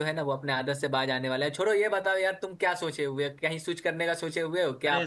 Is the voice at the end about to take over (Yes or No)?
Yes